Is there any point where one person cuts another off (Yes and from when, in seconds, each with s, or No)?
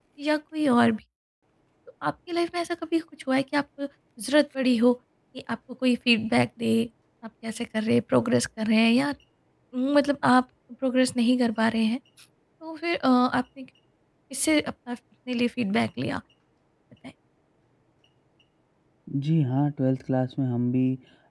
No